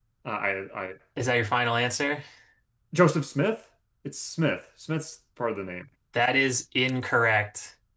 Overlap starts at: none

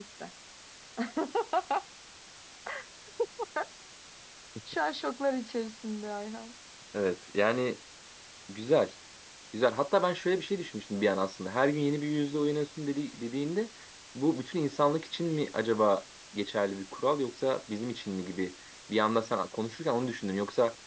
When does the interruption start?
none

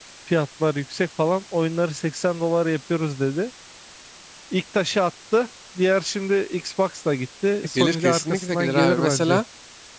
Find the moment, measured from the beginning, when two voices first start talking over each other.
8 s

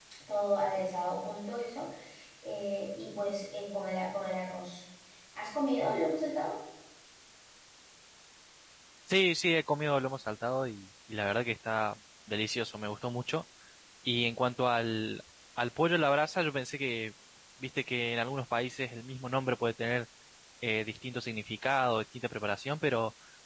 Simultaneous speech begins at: none

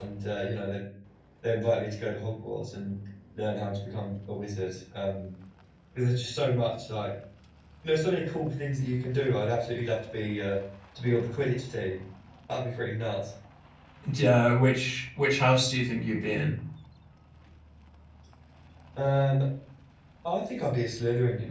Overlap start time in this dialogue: none

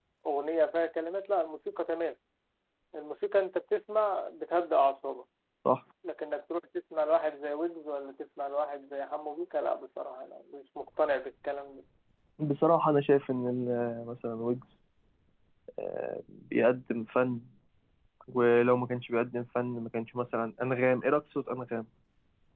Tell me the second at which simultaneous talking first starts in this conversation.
none

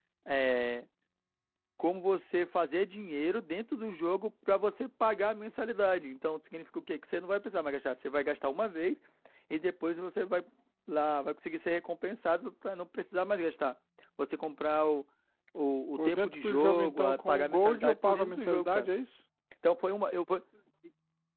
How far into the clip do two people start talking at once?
16 s

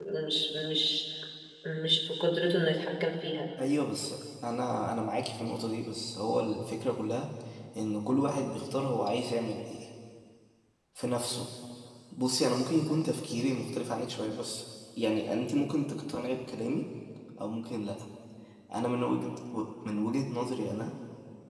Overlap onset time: none

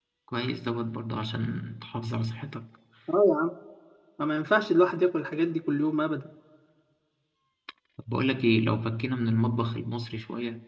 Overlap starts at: none

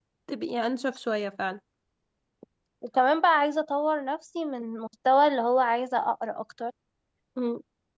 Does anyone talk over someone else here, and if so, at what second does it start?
none

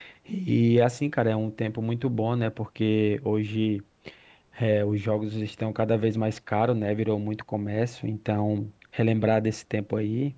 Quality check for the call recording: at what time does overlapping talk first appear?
none

